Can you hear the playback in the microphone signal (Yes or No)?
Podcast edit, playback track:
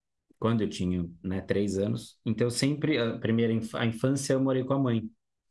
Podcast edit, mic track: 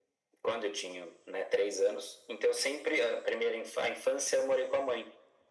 Yes